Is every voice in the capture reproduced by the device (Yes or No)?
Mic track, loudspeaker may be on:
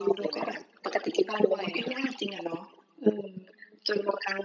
Yes